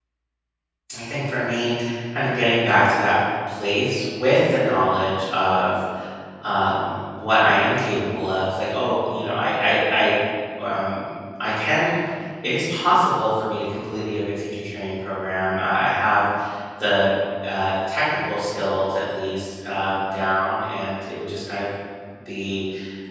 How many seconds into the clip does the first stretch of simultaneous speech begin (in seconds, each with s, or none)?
none